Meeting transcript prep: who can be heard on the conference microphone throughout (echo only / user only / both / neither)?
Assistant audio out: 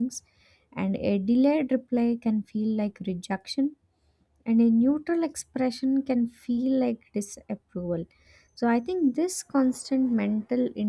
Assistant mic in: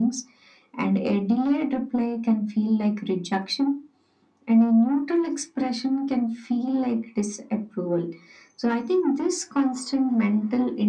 echo only